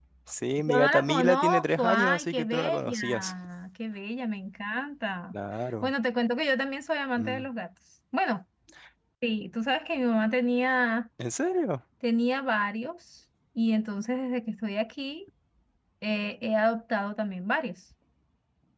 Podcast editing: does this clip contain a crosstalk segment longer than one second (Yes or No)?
Yes